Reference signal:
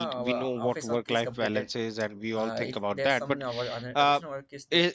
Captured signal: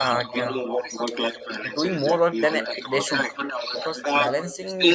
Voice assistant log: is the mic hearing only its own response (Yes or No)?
No